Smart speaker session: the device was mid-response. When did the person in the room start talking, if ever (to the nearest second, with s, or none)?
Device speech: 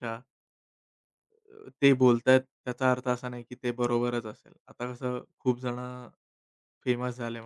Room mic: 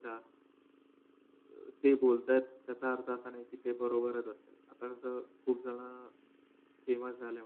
none